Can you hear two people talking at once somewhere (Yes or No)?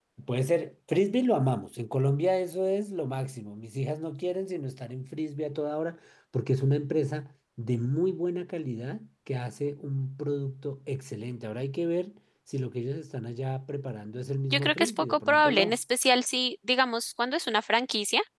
Yes